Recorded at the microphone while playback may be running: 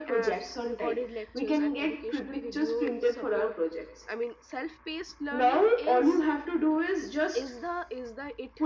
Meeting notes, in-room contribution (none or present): present